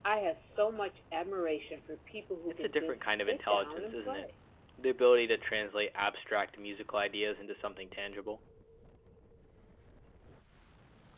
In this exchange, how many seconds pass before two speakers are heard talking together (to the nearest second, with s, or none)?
3 s